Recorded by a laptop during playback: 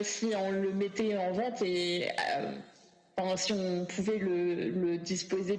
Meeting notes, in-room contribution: none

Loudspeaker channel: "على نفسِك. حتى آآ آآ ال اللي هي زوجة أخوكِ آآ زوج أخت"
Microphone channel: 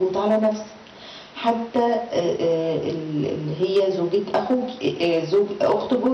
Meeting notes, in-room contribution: none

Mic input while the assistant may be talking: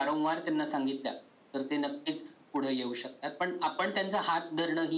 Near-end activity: none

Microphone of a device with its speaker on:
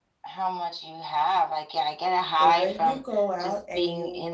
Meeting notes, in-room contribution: present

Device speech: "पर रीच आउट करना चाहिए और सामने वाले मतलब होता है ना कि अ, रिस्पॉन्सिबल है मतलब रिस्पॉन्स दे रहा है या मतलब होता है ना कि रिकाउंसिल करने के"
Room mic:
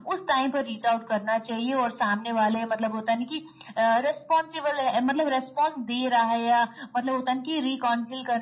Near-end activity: none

